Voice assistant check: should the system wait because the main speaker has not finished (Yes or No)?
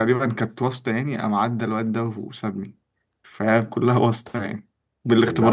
No